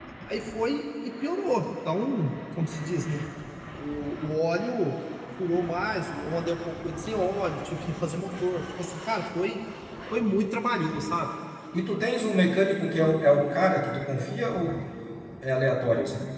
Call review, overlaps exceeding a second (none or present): none